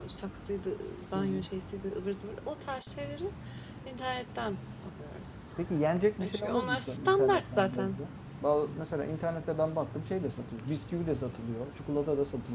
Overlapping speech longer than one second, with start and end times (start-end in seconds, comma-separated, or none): 6.2-8.0